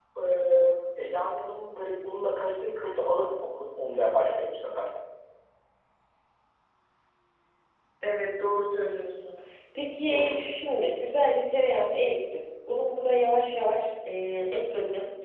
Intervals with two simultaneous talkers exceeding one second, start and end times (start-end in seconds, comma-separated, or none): none